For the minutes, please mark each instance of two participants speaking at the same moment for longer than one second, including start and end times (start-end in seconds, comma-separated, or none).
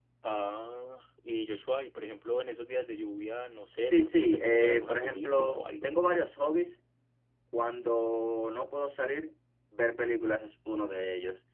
3.9-5.9